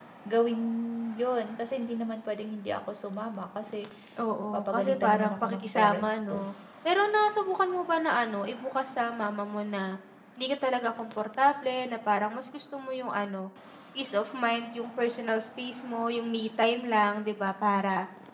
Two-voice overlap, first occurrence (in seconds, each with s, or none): 4.5 s